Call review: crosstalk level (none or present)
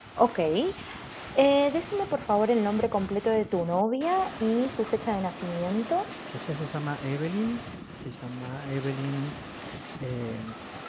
none